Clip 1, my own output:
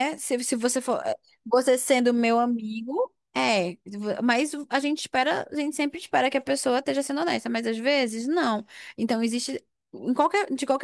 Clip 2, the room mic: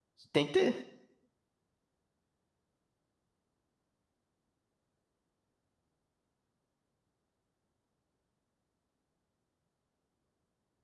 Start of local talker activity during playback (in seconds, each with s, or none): 0.3 s